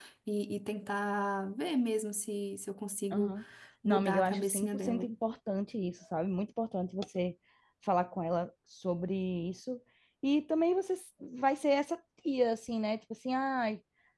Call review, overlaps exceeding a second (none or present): present